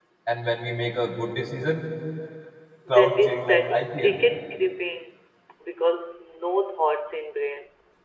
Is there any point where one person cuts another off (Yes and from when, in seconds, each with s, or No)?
Yes, from 2.9 s